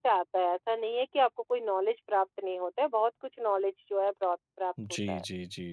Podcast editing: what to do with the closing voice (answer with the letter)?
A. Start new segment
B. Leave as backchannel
A